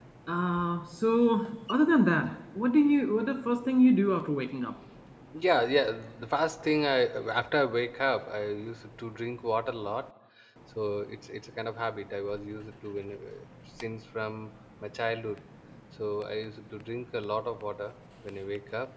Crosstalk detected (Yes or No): No